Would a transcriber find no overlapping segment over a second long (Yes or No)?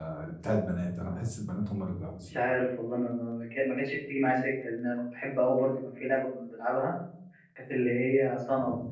Yes